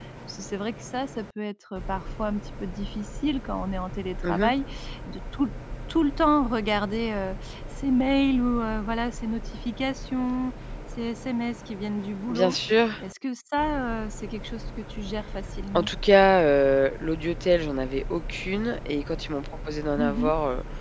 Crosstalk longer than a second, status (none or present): none